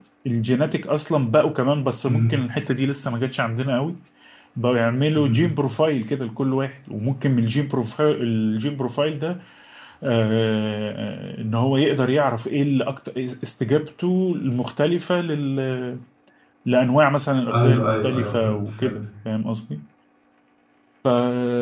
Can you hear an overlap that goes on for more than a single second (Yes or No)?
Yes